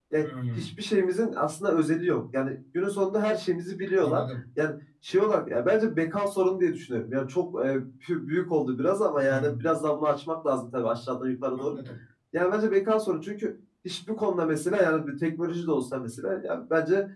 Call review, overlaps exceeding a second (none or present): none